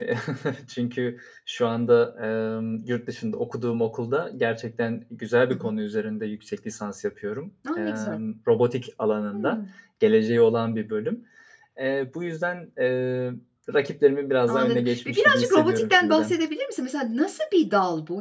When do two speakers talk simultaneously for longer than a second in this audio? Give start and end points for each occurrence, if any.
14.5-16.4

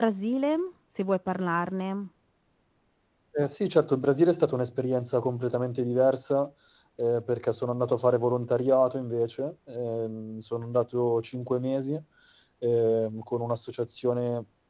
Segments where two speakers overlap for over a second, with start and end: none

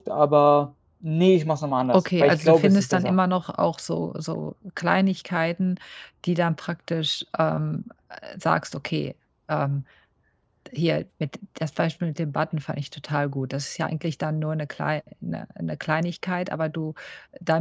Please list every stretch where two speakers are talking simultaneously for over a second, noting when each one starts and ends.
2.0-3.2

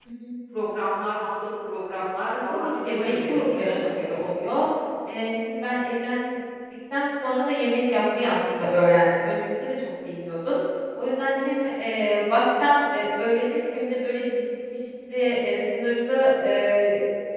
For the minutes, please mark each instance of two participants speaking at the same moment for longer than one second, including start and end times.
2.3-3.8

